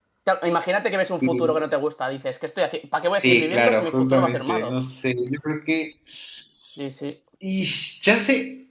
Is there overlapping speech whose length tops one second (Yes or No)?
Yes